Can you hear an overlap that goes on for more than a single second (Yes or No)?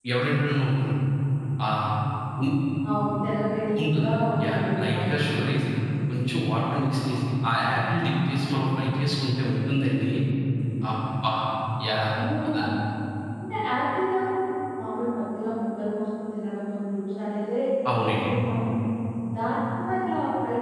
Yes